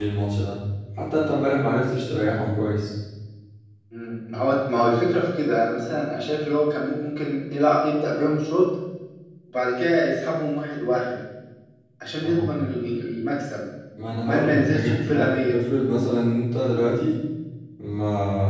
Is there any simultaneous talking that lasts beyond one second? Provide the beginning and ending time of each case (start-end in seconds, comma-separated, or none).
14.2-15.5